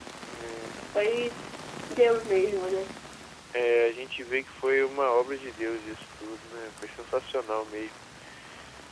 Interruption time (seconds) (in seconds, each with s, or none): none